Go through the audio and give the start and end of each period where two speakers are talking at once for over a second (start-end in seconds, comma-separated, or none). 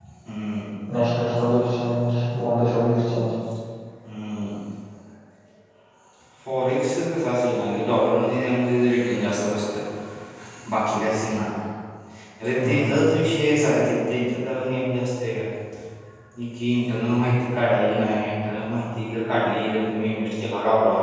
none